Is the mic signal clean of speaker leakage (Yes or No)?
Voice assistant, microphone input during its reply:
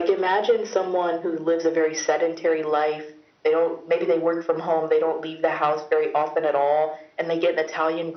No